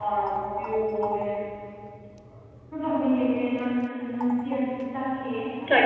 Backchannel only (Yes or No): No